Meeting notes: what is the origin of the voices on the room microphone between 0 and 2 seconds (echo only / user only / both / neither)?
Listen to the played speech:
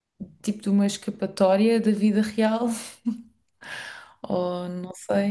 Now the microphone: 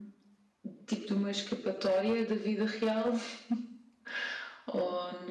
echo only